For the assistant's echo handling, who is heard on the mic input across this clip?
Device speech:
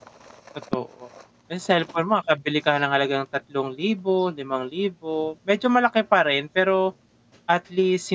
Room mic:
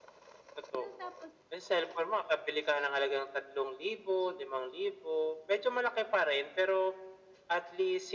both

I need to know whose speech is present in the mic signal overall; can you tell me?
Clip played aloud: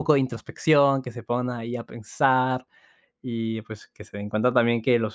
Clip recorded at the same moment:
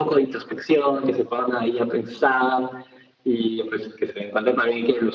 echo only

